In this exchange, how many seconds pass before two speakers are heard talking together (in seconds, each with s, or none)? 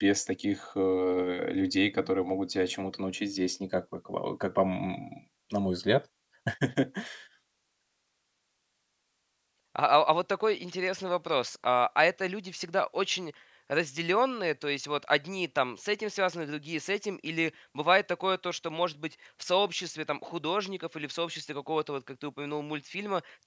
none